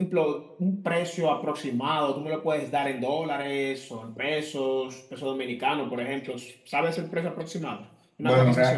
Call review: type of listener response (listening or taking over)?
taking over